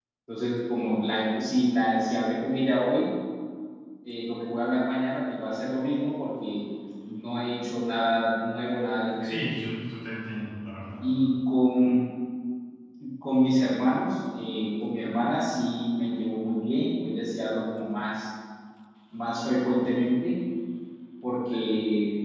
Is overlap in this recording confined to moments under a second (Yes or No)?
Yes